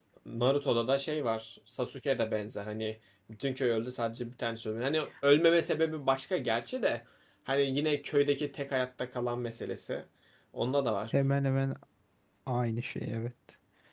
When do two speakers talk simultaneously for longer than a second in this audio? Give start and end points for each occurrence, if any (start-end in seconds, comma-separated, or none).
none